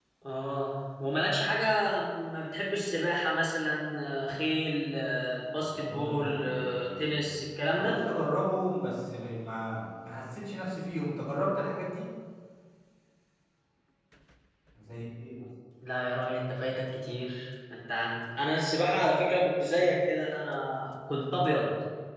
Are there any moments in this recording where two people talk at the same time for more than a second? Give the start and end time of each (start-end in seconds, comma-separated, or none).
5.5-7.2